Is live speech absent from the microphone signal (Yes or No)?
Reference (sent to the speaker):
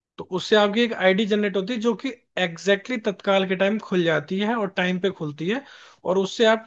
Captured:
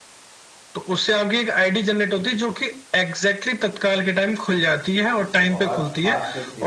No